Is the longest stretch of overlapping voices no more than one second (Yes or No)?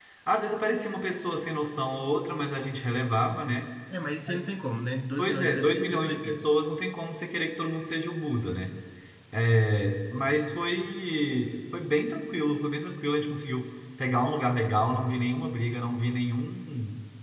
No